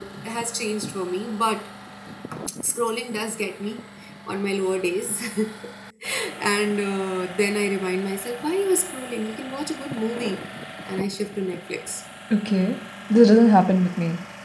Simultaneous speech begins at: none

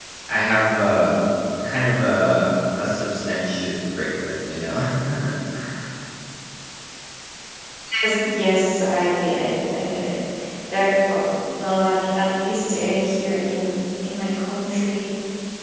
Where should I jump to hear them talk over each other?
none

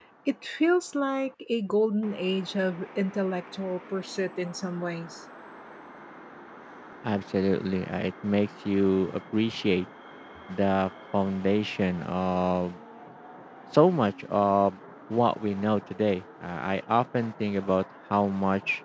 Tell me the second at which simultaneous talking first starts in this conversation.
none

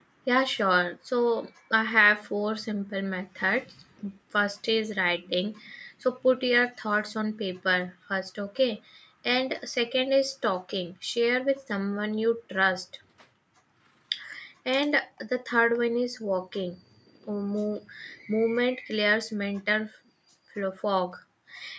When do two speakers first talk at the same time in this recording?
none

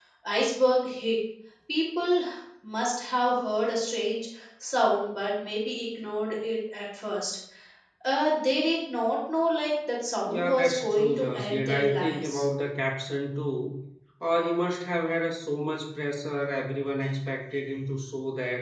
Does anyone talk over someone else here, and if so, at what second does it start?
10.3 s

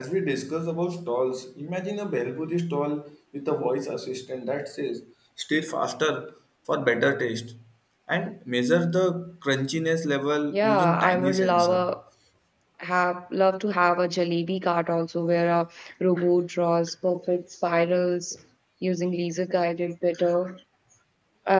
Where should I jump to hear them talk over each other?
10.5 s

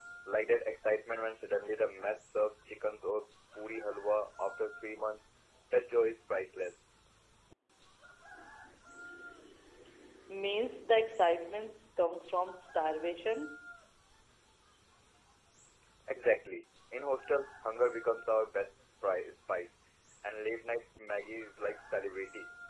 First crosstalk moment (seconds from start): none

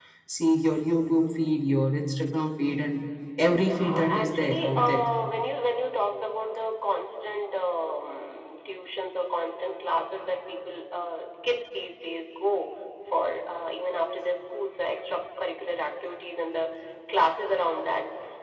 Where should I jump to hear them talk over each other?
3.6 s

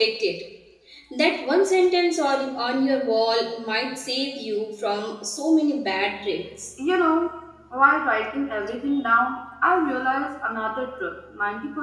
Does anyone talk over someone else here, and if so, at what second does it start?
none

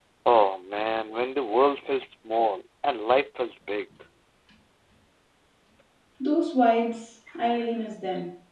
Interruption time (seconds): none

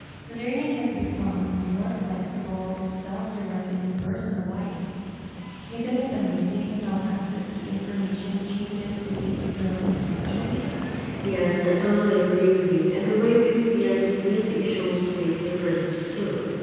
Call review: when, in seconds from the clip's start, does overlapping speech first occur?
none

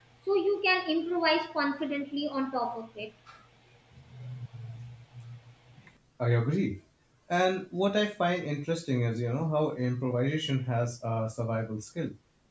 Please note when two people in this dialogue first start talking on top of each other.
none

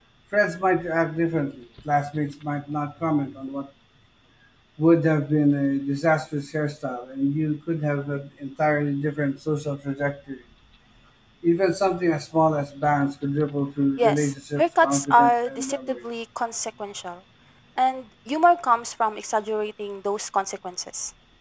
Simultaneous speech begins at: 14.0 s

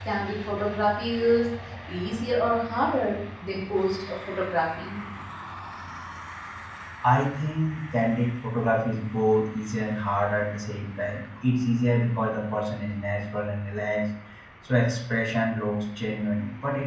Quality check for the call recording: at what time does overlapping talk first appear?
none

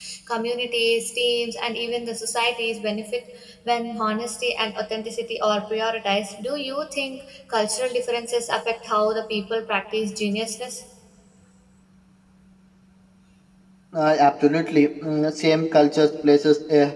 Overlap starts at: none

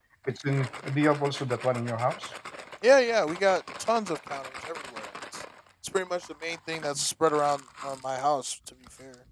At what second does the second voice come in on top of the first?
none

